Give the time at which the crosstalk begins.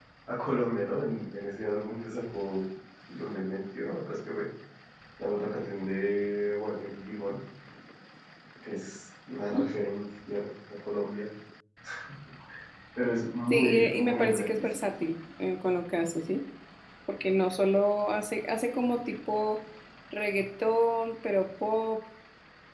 13.5 s

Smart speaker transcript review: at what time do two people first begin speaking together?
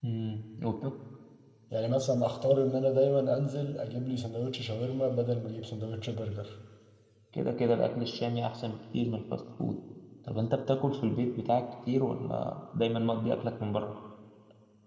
none

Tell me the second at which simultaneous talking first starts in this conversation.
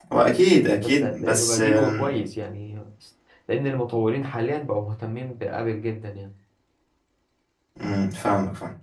0.8 s

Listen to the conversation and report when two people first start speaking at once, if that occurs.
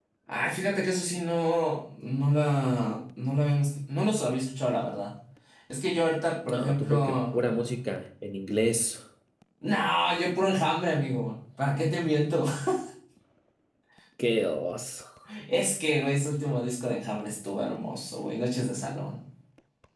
6.5 s

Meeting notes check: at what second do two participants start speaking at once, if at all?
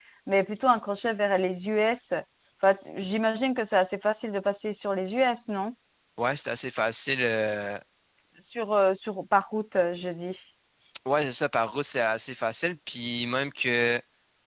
none

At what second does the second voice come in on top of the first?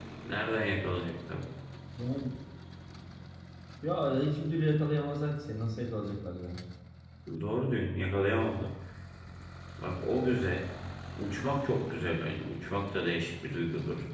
none

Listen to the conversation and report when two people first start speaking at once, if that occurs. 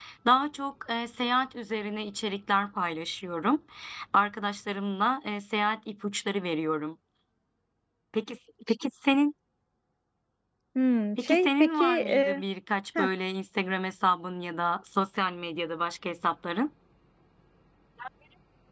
11.2 s

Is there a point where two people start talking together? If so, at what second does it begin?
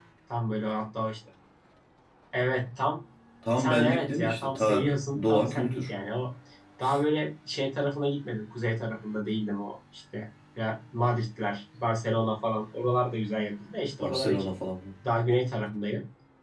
3.6 s

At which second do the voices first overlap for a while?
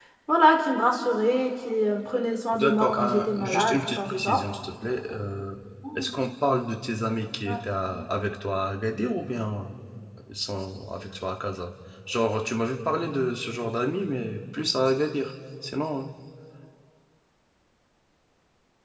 2.5 s

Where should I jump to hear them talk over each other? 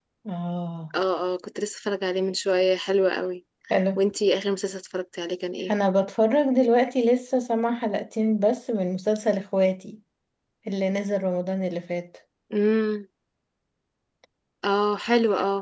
none

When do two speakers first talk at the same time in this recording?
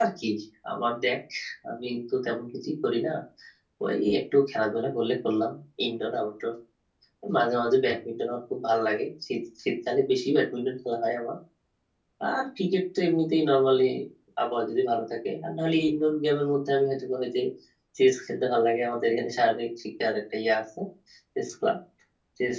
none

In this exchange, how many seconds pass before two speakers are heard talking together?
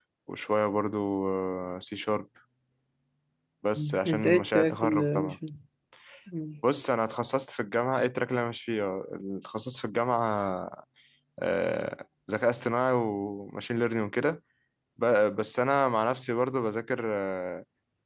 3.8 s

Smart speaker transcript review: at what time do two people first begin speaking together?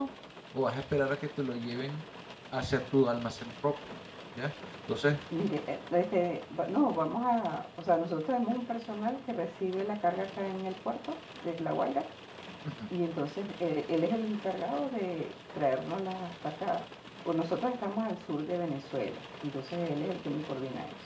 none

